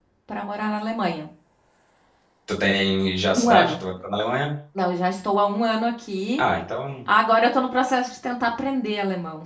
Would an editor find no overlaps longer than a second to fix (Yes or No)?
Yes